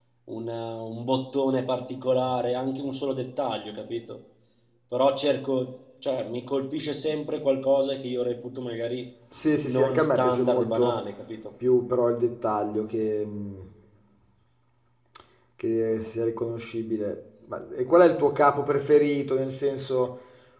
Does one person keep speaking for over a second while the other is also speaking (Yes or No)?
Yes